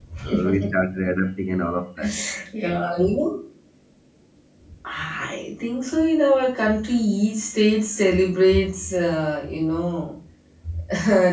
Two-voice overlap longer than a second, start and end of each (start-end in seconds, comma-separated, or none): none